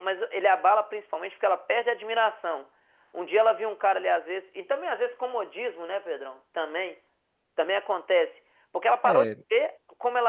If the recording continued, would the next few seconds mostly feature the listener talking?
No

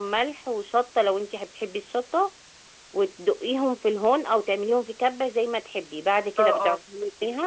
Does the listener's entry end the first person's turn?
Yes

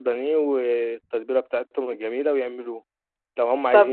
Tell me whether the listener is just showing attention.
Yes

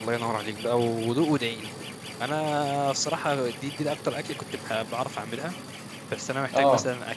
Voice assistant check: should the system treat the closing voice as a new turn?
No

